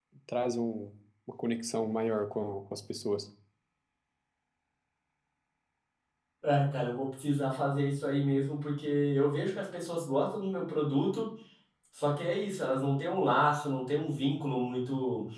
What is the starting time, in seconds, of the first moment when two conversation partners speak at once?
none

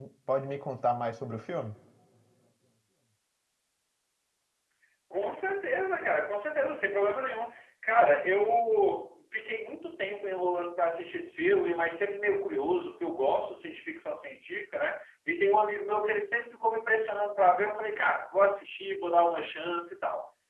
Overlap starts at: none

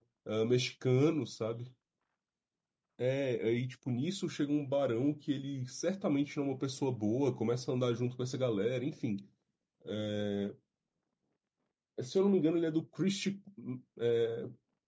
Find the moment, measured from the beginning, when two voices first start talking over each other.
none

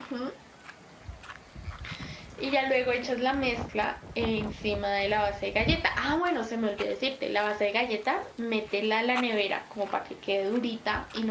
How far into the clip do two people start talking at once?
none

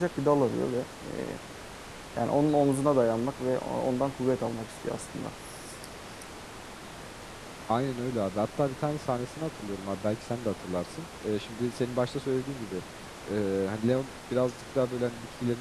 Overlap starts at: none

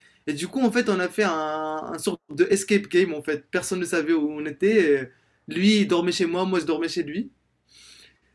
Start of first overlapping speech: none

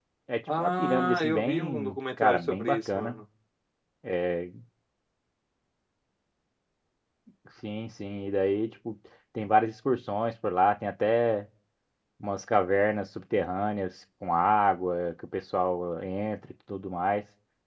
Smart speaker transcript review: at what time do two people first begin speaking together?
0.5 s

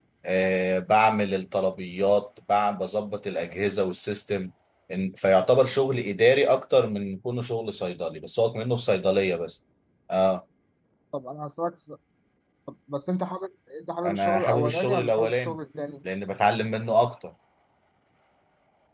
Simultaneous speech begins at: 14.0 s

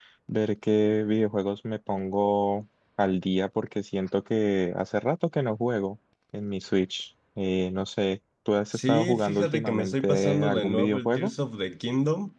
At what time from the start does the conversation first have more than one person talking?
8.7 s

